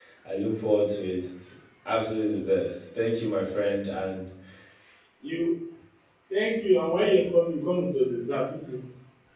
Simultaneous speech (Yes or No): No